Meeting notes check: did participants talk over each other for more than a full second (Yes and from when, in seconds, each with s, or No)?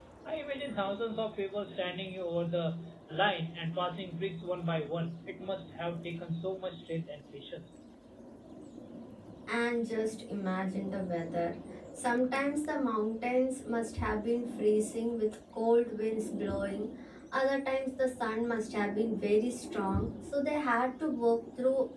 No